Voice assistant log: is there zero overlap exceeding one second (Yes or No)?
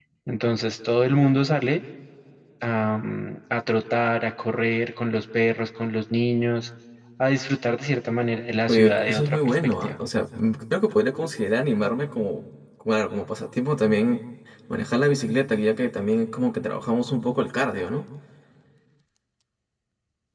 No